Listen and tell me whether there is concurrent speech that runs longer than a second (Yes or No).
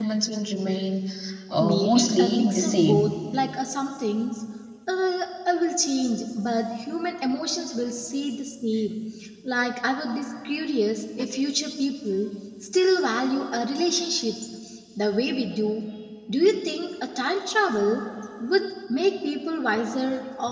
Yes